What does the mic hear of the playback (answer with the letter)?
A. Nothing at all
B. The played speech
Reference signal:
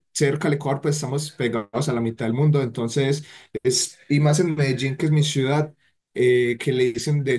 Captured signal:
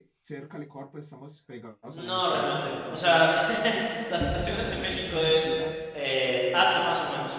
B